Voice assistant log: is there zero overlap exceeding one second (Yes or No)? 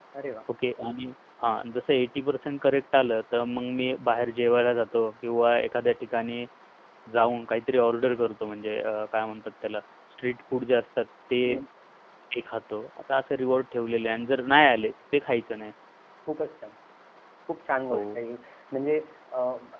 Yes